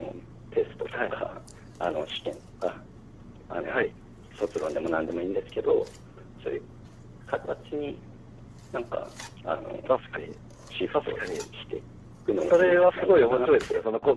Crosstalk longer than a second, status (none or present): present